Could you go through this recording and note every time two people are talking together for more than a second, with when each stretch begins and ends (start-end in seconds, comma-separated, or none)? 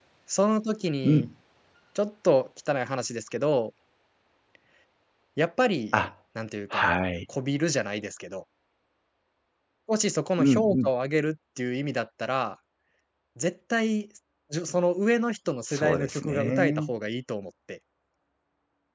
15.7-16.9